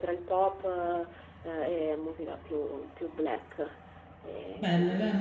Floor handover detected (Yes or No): Yes